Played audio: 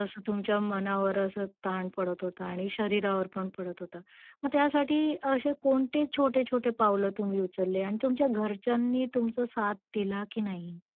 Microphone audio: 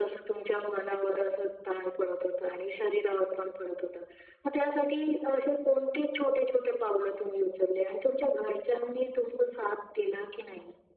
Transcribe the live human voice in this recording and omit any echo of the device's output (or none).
none